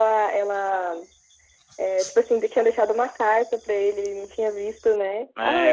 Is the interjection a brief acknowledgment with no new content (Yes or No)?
No